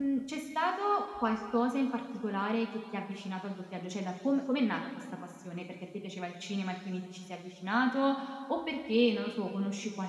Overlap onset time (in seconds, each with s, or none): none